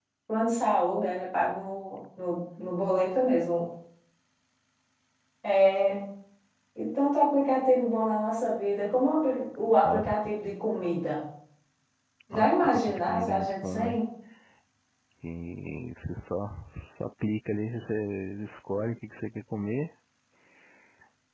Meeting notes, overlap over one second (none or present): present